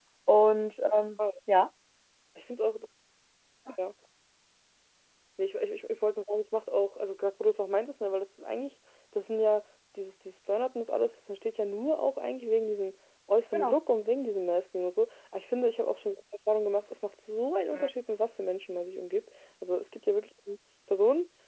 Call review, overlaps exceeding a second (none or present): none